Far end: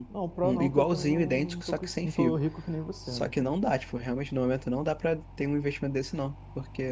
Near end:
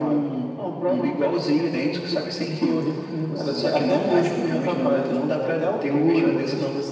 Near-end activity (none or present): present